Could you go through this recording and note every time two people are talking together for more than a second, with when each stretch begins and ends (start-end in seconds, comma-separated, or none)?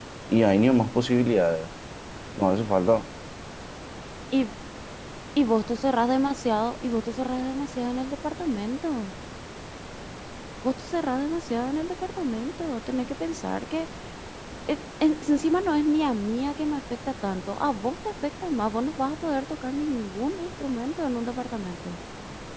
none